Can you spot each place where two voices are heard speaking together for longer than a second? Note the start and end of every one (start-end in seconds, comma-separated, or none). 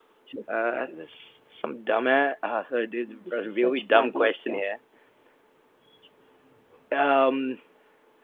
3.1-4.6